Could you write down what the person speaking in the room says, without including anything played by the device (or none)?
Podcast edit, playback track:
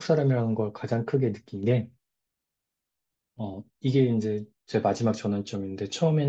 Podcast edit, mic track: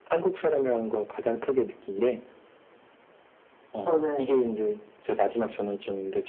저는